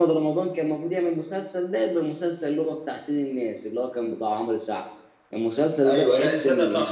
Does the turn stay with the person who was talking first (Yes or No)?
No